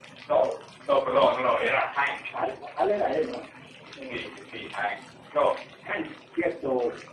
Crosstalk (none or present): none